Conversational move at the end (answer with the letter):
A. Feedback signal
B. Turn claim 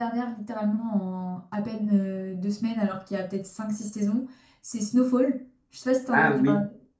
B